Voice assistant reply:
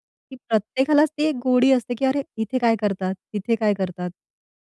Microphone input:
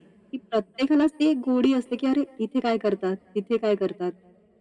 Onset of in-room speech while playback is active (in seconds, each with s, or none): none